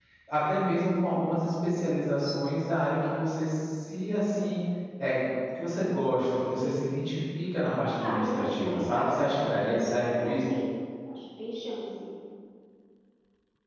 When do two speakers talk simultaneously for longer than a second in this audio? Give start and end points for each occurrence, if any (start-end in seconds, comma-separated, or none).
8.0-10.3